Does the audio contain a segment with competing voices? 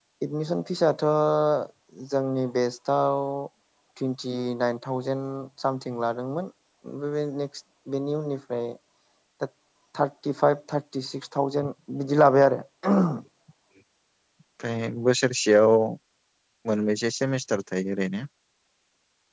No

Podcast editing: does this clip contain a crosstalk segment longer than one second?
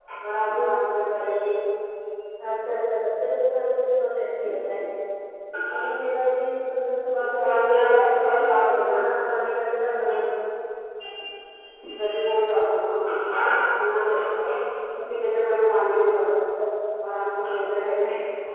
Yes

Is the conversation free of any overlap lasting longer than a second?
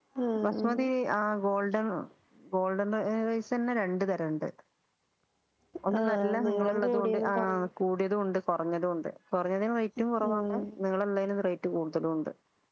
No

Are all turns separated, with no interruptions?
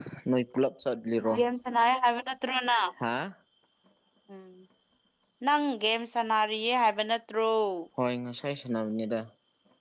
Yes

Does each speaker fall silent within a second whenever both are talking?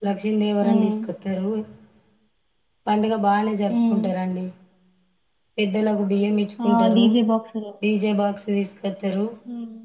Yes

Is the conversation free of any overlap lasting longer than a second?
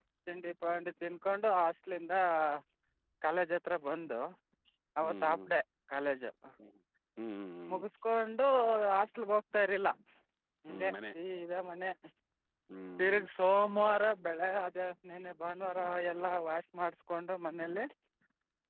Yes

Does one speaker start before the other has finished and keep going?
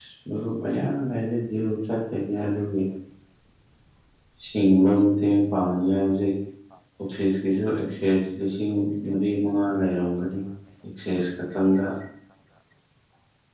No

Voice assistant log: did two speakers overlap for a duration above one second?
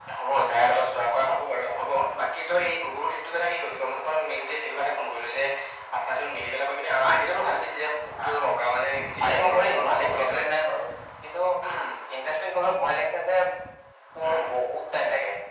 Yes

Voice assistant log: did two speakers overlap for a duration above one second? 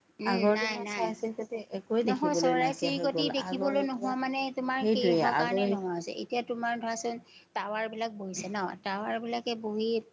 Yes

